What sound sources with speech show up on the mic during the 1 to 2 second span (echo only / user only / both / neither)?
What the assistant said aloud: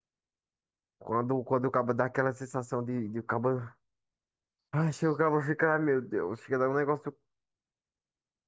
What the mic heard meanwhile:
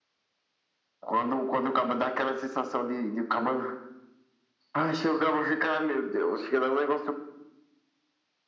echo only